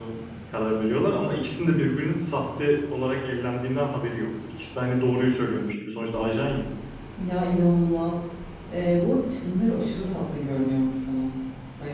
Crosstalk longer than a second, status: none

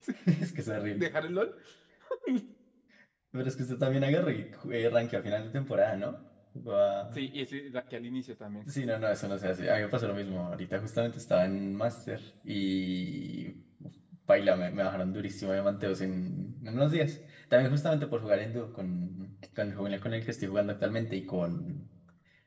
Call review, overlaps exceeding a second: none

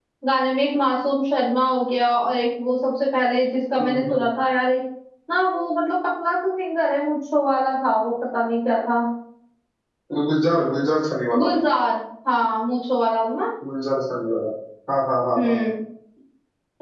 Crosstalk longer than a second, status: none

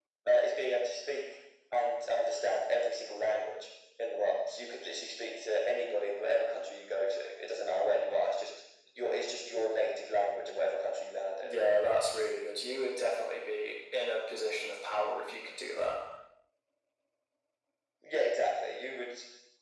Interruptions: none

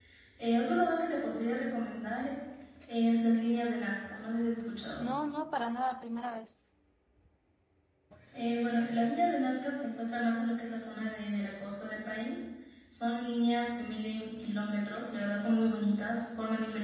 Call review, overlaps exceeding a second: none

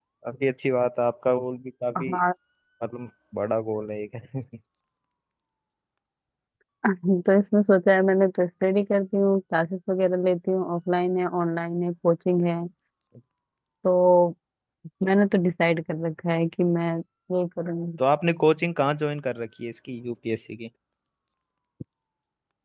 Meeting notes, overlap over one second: none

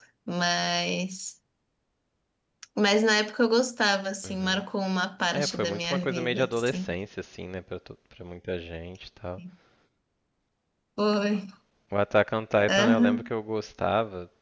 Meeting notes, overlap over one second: present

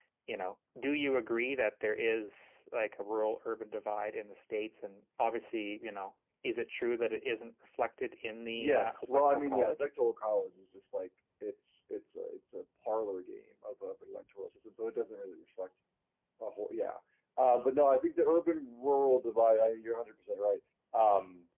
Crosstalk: present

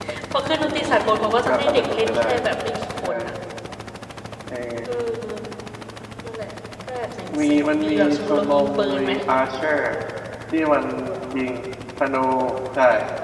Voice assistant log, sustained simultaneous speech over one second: present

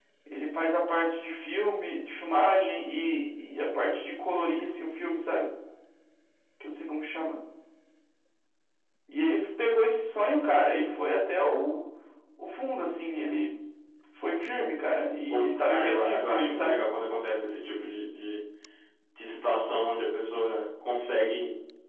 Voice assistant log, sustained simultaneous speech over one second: present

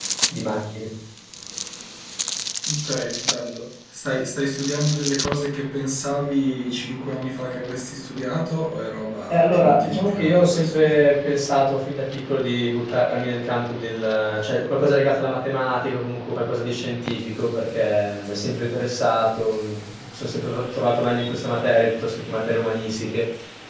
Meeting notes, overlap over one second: present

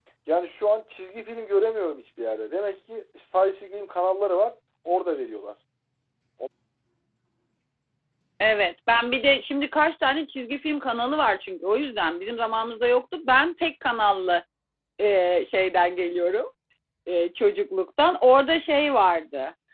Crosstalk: none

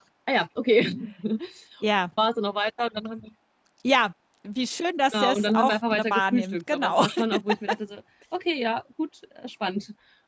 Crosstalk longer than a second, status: present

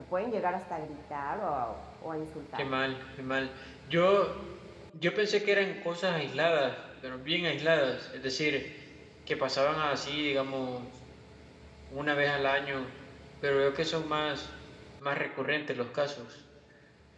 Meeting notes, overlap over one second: none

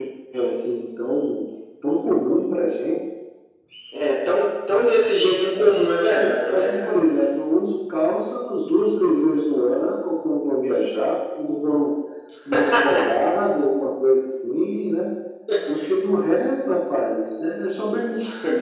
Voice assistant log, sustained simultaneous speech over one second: present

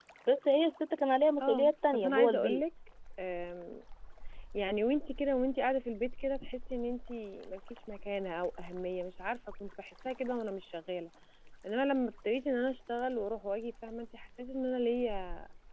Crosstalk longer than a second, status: present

